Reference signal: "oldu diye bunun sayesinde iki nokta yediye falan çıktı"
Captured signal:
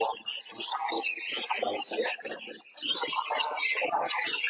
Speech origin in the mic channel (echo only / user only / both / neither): echo only